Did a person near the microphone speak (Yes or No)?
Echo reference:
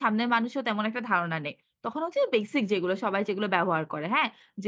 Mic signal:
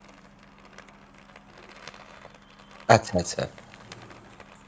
Yes